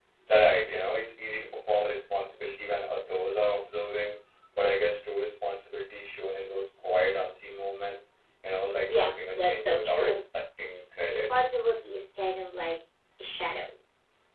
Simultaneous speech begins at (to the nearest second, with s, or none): 9 s